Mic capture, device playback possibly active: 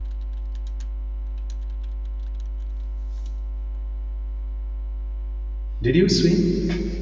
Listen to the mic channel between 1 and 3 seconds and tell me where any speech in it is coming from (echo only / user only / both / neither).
neither